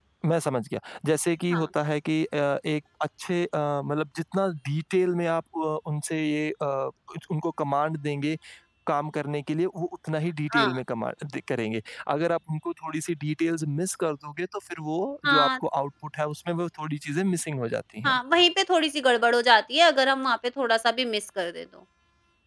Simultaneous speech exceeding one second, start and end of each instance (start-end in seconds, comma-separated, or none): none